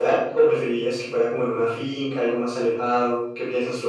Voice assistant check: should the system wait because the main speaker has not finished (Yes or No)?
No